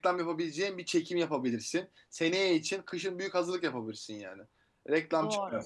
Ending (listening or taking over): listening